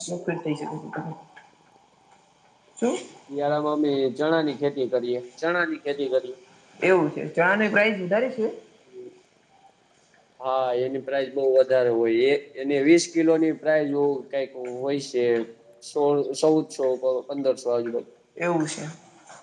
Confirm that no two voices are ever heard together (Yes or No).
Yes